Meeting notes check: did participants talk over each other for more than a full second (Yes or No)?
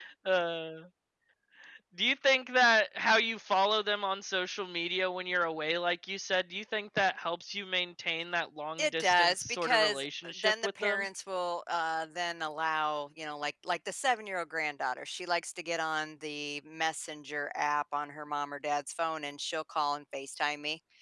Yes